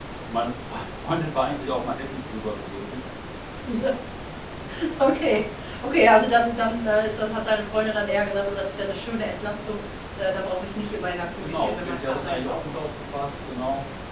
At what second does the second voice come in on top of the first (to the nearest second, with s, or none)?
11 s